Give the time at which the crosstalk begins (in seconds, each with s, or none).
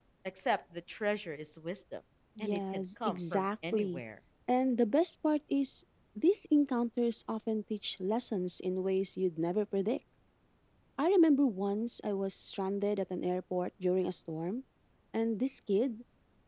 2.4 s